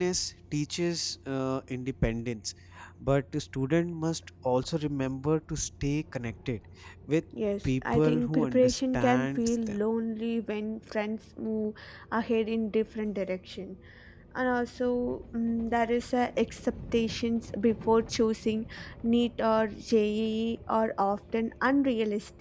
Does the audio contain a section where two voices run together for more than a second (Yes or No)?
Yes